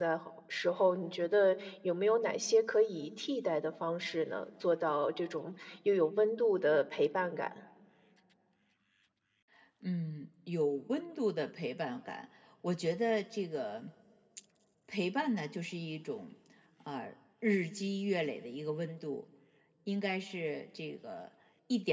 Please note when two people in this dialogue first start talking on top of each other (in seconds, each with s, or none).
none